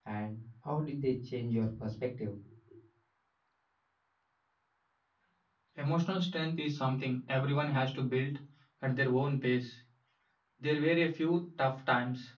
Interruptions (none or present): none